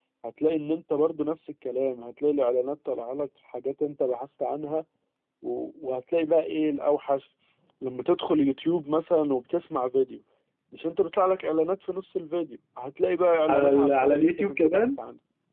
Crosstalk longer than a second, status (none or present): present